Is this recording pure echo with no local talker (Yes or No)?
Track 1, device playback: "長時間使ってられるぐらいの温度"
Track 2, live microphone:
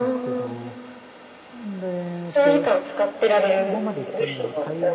No